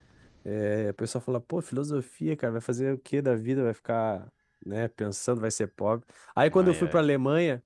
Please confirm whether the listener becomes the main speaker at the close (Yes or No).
No